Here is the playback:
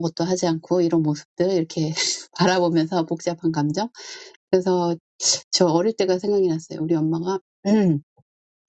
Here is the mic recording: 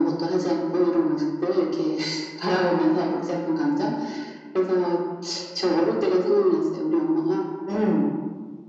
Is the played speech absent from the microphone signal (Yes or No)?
No